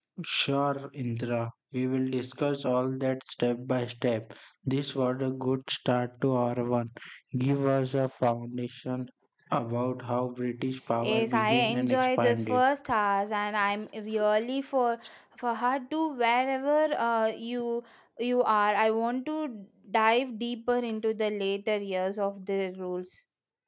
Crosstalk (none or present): present